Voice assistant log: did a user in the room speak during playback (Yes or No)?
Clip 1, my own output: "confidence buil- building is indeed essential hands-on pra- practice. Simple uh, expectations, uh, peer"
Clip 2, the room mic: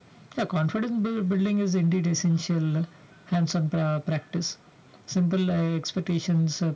No